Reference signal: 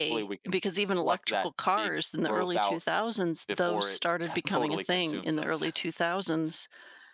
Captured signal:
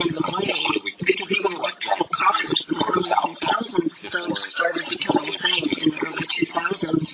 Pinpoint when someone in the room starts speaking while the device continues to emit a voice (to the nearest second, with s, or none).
none